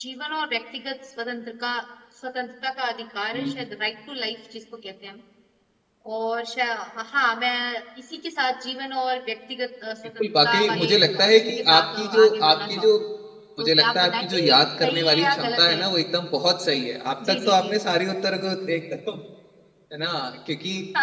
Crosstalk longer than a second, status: present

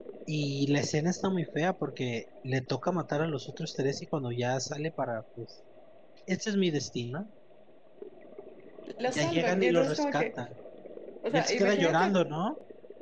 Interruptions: present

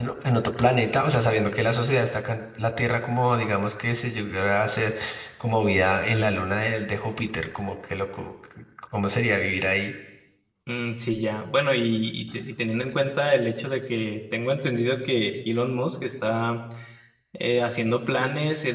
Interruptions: none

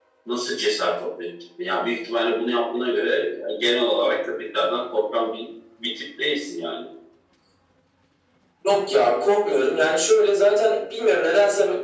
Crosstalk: none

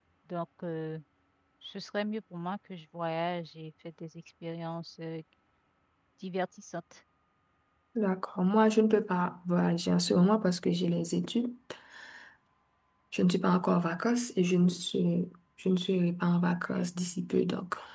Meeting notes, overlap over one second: none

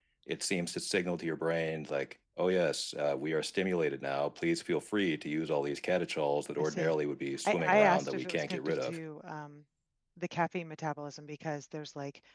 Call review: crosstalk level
present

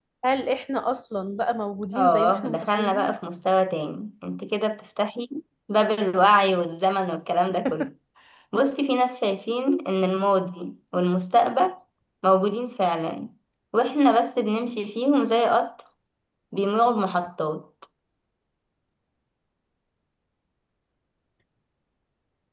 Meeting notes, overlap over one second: present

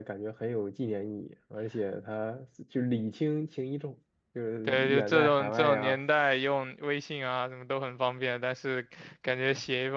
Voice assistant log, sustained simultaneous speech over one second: present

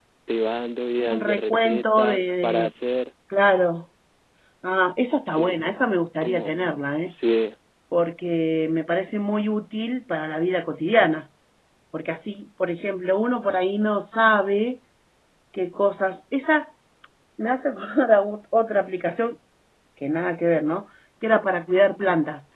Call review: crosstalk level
present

